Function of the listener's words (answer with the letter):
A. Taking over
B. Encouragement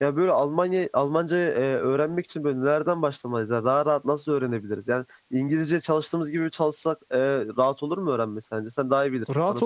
A